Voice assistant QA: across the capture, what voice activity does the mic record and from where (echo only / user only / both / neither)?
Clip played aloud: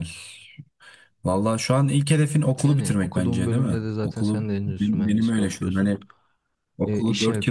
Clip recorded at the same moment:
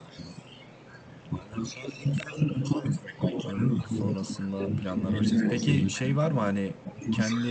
both